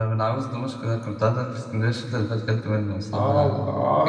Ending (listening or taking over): taking over